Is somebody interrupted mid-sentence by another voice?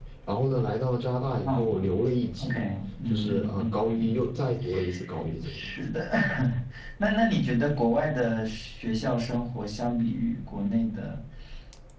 Yes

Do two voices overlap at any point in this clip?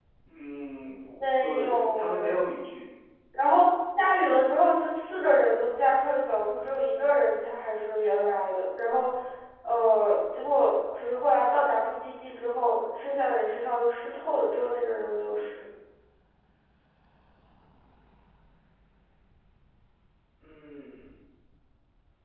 Yes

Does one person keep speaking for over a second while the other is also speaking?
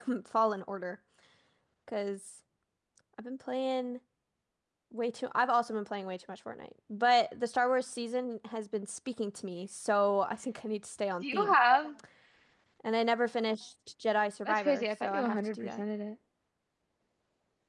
Yes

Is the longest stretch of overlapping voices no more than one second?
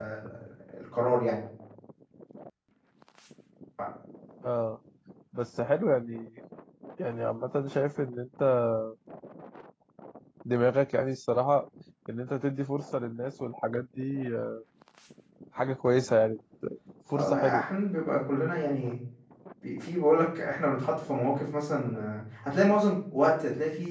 Yes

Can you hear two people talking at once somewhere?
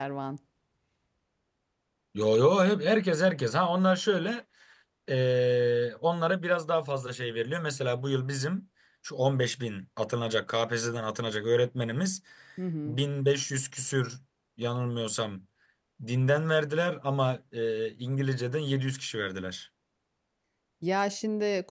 No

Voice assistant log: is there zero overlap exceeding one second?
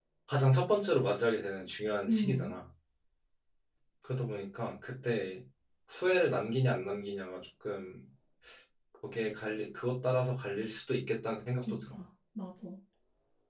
Yes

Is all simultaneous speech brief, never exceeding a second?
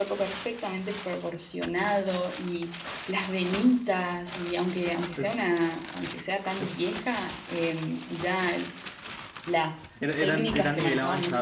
No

